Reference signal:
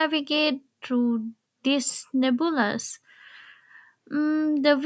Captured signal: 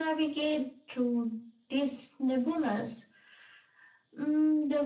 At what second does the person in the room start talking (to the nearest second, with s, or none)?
none